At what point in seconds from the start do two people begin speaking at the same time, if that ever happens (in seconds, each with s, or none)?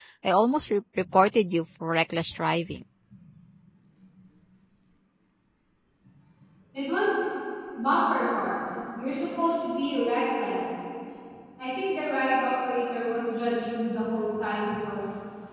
none